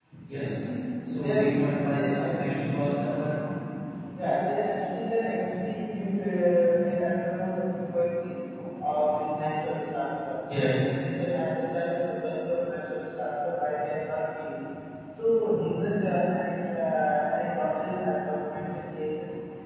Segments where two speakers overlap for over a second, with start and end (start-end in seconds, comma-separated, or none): 1.2-2.7